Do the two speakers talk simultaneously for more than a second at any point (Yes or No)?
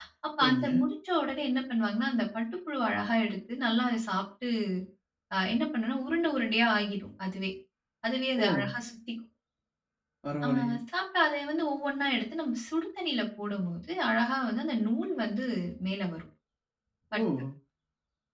No